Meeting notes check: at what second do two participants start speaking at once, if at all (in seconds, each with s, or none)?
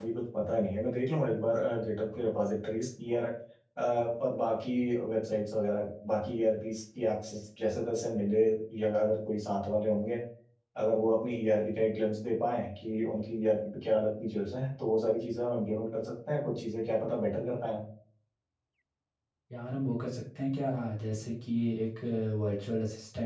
none